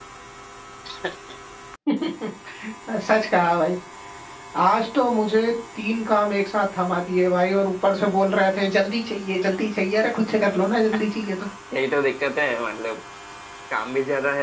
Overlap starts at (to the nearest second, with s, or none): none